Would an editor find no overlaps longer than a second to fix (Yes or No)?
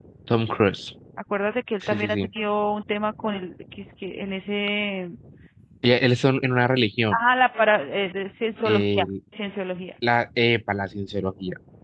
Yes